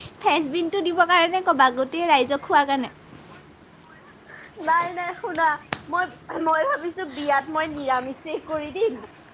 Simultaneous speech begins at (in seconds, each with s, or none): none